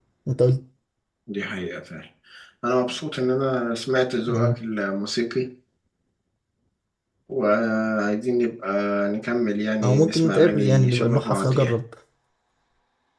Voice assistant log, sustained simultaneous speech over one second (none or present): present